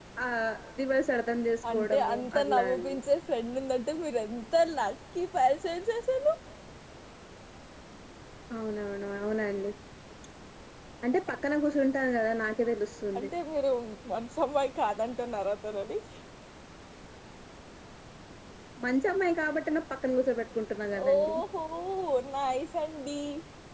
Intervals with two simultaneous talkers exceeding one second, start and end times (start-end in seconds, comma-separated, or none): 1.7-3.0